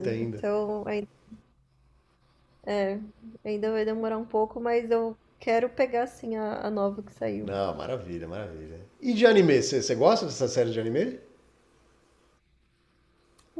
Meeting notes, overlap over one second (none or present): none